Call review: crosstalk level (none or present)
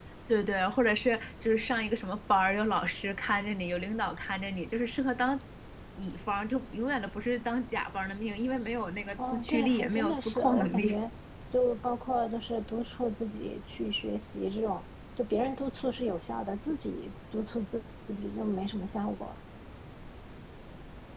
present